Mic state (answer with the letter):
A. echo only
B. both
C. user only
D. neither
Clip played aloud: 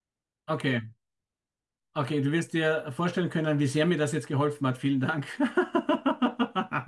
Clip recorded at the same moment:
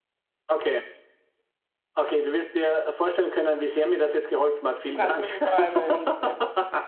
B